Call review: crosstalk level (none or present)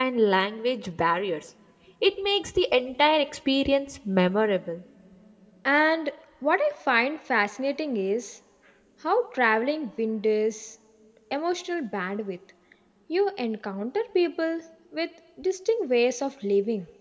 none